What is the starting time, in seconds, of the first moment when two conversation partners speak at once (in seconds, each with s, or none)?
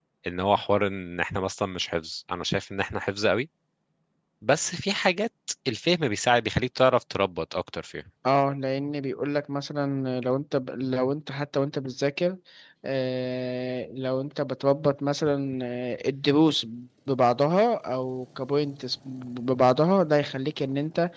none